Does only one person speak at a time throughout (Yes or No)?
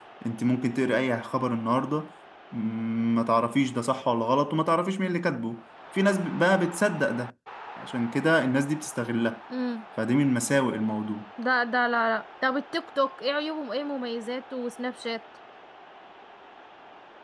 Yes